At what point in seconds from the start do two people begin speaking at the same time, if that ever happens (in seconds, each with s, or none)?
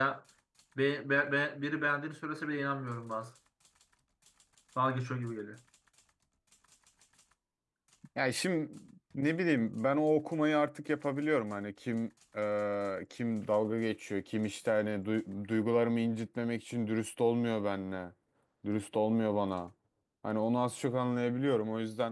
none